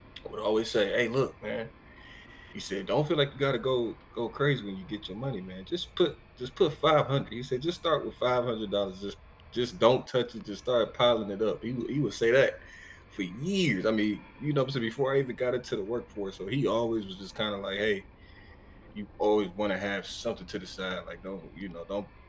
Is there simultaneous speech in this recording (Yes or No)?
No